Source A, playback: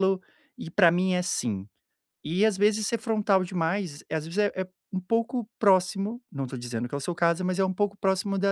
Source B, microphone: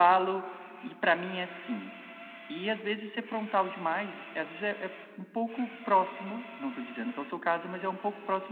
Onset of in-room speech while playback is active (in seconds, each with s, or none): none